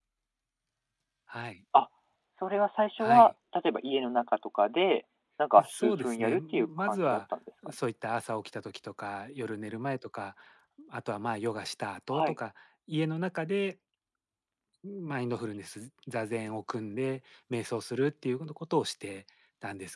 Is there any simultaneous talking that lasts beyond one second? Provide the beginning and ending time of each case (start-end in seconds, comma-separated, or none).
5.6-7.2